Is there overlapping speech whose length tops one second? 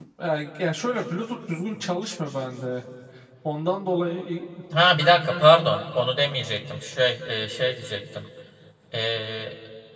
No

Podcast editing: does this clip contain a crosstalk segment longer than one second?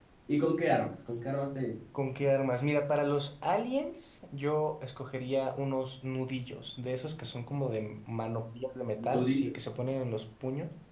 No

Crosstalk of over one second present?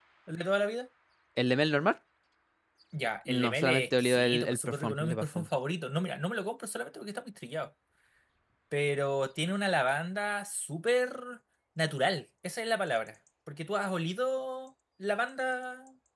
Yes, from 3.3 s

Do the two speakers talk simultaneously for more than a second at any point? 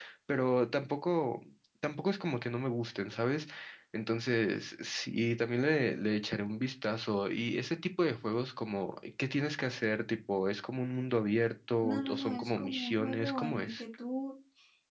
Yes, from 11.8 s

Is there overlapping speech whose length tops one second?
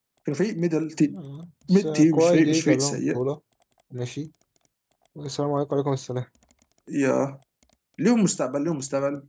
Yes, from 1.7 s

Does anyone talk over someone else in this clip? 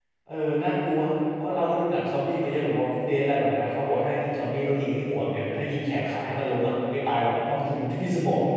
No

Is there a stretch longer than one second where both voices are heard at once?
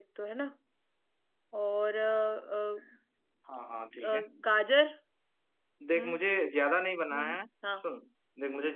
No

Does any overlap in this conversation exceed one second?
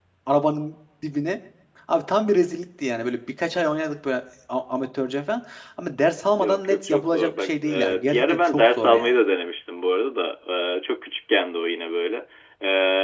Yes, from 6.4 s

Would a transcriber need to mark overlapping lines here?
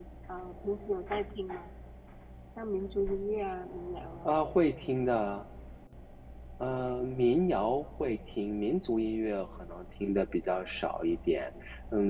No

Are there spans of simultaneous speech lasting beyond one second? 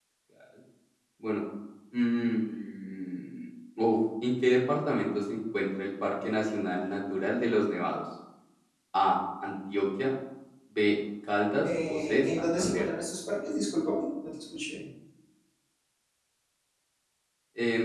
Yes, from 11.6 s

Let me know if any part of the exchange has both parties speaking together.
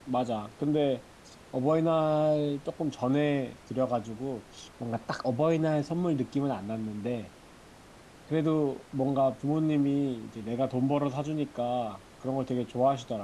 No

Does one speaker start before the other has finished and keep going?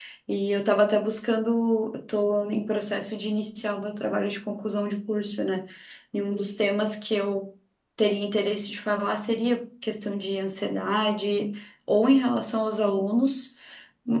No

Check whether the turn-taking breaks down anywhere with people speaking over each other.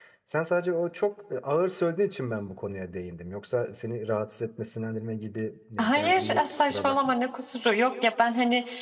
Yes, from 5.8 s

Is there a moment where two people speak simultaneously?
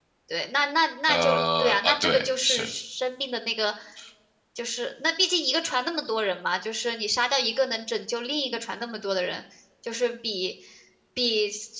Yes, from 1.1 s

